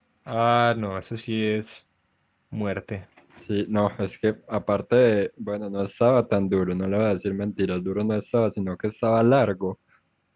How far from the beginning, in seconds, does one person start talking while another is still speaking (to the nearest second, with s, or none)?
none